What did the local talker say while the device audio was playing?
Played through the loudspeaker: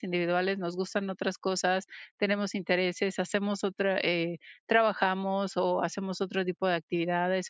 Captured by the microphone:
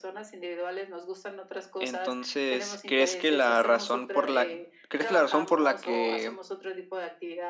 Entonces, ¿crees que la razón por la crees que la razón por la que

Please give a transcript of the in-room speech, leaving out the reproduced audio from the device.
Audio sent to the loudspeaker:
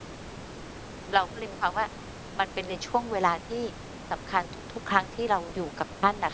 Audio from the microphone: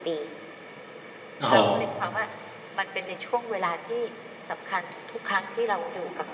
อ๋อ

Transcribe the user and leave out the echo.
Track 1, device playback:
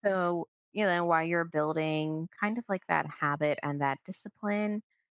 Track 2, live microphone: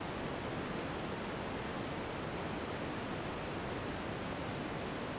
none

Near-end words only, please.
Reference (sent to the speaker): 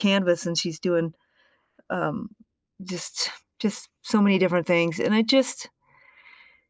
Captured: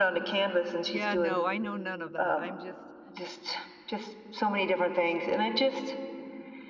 Yeah, no, I know none of that. I'm just

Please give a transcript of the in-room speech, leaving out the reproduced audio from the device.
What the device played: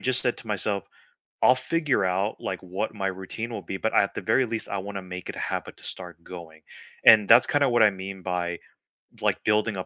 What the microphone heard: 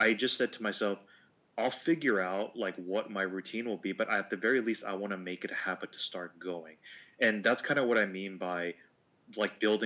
none

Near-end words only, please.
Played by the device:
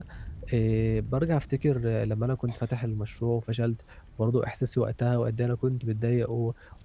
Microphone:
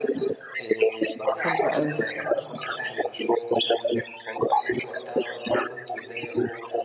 حلو أوي.

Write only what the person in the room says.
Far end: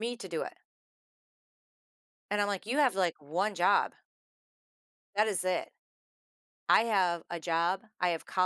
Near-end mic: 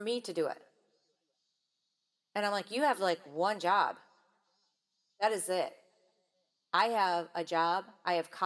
none

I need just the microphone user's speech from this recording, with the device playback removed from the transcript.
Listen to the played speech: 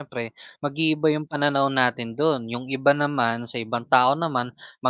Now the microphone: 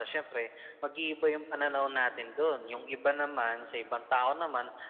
none

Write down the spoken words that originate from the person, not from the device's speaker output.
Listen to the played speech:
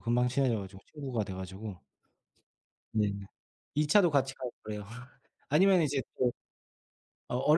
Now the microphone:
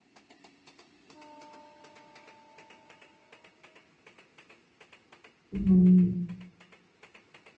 음.

